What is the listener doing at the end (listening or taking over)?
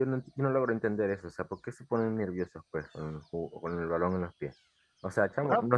listening